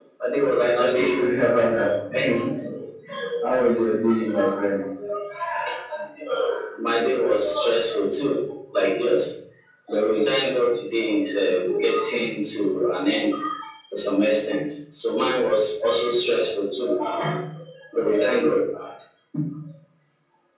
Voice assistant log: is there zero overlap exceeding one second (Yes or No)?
Yes